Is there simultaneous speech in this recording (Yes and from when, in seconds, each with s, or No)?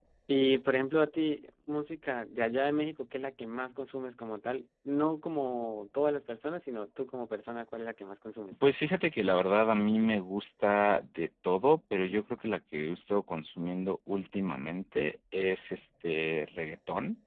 No